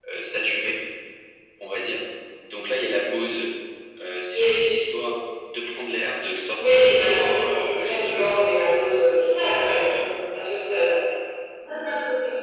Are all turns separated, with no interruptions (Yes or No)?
No